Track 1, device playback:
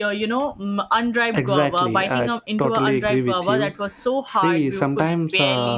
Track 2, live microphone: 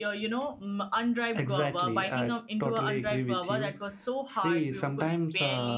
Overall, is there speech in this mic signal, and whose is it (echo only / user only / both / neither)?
echo only